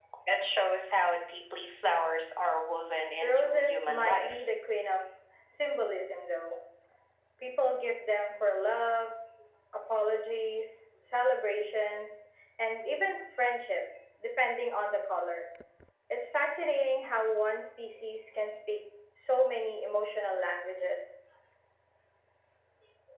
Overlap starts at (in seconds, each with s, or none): 3.2 s